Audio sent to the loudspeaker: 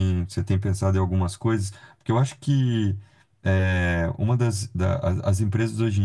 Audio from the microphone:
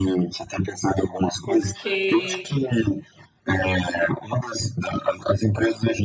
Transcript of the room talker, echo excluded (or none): Porque